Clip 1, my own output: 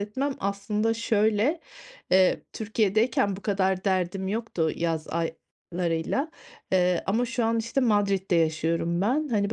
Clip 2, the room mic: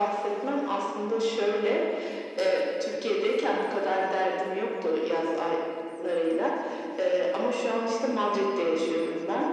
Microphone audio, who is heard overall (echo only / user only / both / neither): echo only